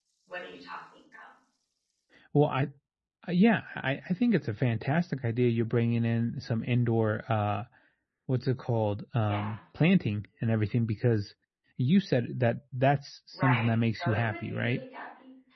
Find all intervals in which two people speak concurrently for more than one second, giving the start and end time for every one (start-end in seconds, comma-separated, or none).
13.4-14.8